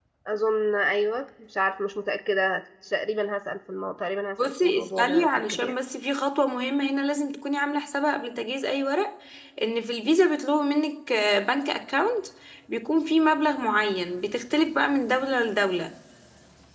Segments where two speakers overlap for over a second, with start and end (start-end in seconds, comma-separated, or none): 4.4-5.7